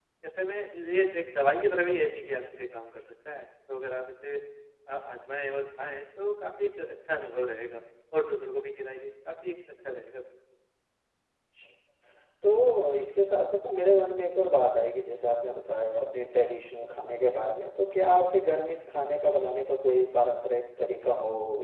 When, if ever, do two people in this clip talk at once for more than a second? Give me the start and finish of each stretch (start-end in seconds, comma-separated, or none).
none